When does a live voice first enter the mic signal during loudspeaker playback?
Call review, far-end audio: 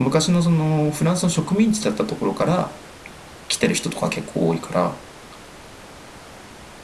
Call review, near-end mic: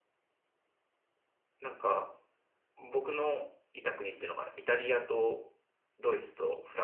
1.6 s

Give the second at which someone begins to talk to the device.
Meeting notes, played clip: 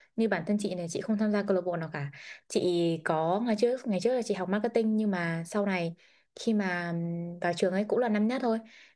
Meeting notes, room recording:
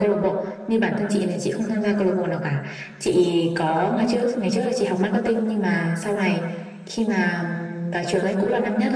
none

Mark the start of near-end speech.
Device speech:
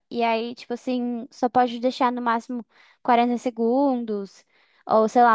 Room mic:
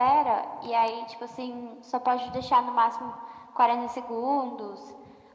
none

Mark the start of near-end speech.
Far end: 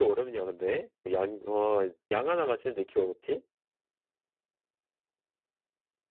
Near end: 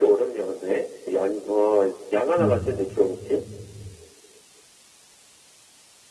2.4 s

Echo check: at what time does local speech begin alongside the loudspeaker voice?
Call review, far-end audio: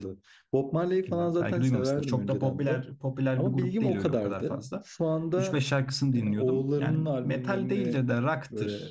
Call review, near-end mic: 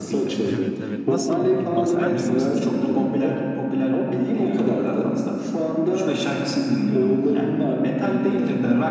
0.4 s

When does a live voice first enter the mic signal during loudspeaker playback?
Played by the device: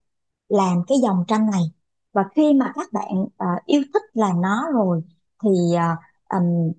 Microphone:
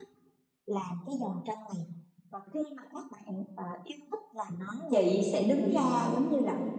4.9 s

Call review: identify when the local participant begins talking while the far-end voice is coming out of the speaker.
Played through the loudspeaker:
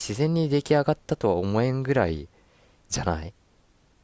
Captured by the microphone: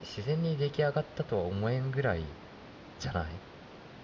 none

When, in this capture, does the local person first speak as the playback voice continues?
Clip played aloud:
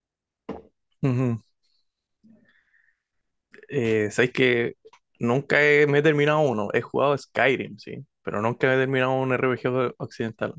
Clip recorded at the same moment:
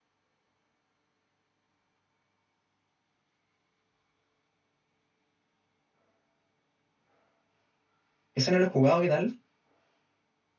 8.3 s

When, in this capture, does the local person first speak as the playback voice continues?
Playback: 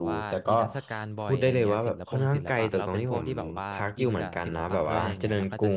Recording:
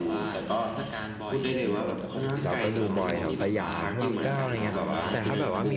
2.4 s

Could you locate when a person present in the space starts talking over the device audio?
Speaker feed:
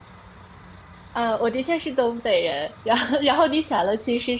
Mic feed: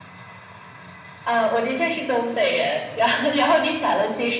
none

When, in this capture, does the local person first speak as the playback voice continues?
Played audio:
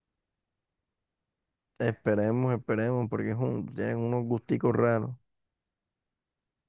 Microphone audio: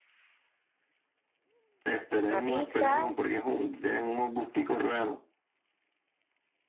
2.3 s

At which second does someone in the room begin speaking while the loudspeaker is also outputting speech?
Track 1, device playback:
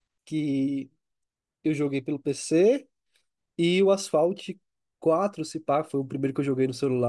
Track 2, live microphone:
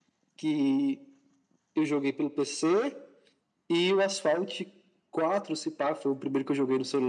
none

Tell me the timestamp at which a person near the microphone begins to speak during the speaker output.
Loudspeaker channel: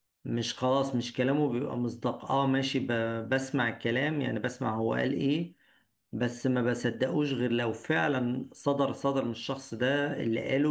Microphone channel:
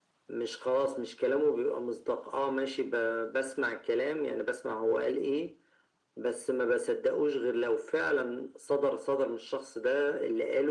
none

